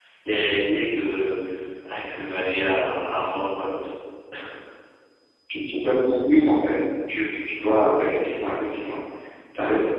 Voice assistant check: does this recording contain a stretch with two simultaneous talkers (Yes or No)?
No